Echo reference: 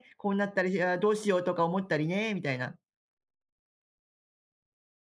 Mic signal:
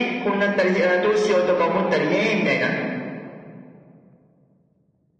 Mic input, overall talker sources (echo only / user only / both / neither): echo only